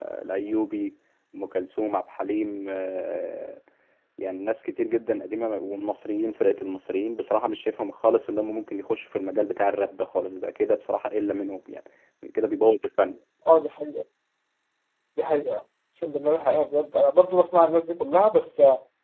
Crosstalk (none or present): none